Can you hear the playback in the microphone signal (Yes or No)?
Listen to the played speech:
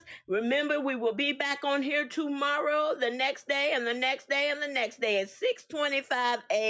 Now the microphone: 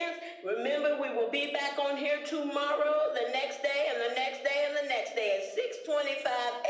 Yes